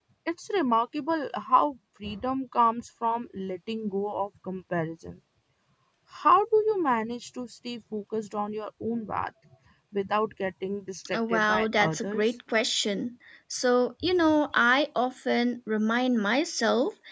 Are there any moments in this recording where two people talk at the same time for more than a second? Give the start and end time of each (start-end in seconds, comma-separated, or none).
11.1-12.3